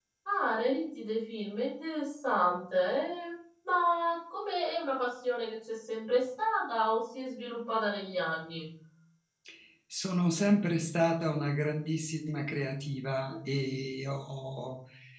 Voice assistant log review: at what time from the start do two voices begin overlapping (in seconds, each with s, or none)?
none